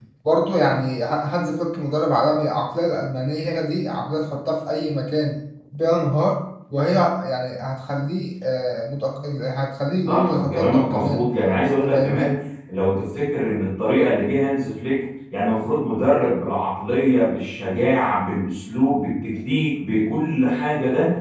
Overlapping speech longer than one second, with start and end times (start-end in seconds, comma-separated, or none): 10.1-11.3